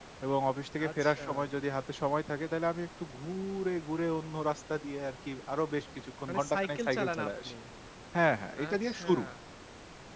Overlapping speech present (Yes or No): Yes